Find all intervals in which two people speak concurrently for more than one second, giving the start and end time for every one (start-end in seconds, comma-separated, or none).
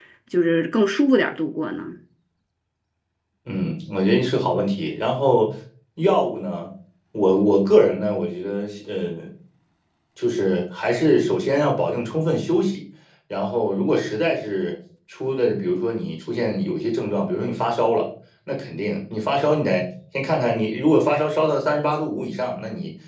none